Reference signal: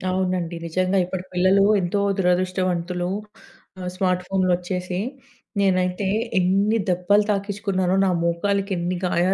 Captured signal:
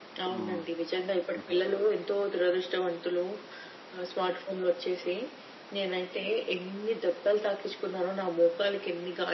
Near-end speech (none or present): present